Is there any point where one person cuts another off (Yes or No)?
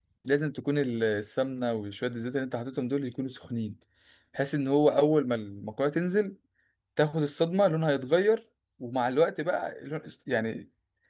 No